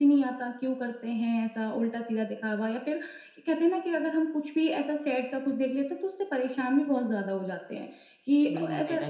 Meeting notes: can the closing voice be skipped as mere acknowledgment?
No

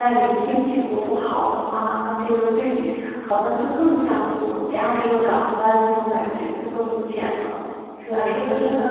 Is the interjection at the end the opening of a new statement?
Yes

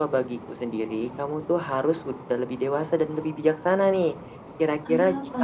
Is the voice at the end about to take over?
No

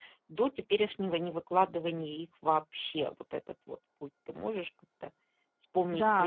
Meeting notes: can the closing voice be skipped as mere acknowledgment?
No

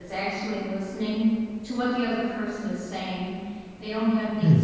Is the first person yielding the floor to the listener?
No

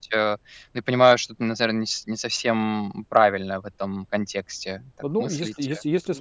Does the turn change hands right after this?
Yes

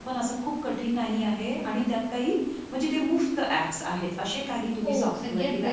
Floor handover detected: Yes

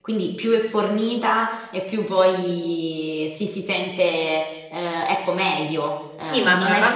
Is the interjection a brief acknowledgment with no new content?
No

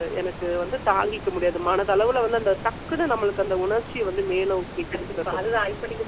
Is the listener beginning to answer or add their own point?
Yes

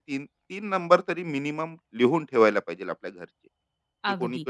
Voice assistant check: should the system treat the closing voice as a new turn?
Yes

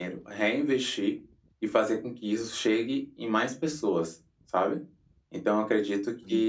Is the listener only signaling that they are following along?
Yes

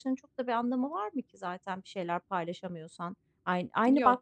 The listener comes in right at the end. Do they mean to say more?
No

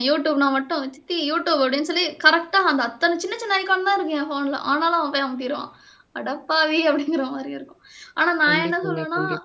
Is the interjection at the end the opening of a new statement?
No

